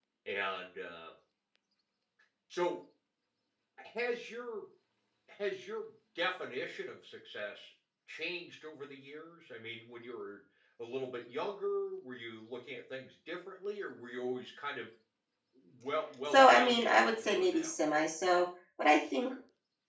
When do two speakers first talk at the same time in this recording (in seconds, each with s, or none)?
16.3 s